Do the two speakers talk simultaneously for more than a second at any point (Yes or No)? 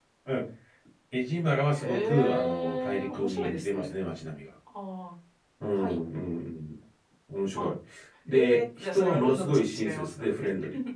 Yes